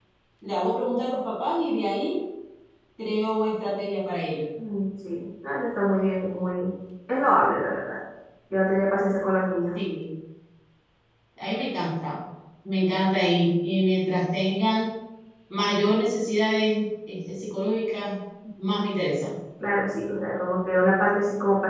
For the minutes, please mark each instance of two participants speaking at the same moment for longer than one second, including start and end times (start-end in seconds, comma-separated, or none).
none